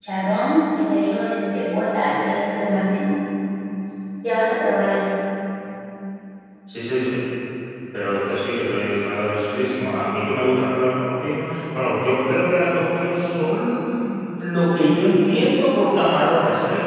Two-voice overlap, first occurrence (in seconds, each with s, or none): none